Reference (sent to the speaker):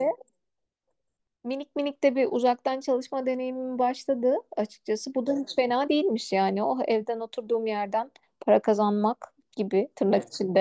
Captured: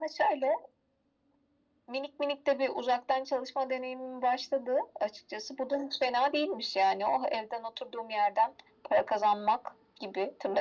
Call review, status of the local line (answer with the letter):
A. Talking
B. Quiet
B